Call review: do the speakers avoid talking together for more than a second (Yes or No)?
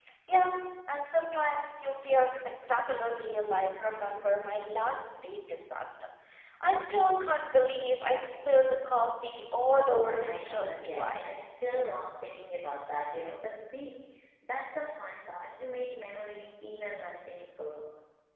No